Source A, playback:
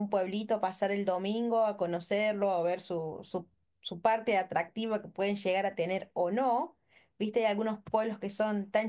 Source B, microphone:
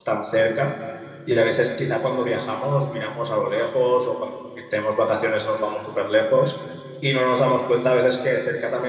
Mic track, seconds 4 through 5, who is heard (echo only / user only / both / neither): user only